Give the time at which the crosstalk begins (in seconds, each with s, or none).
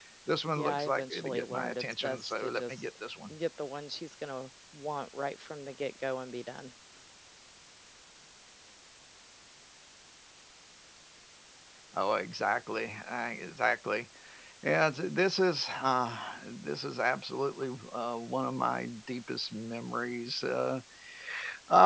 0.6 s